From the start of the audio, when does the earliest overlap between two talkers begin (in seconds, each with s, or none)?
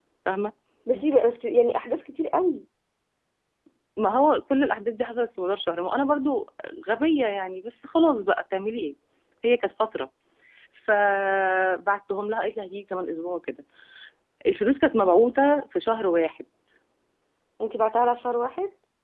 none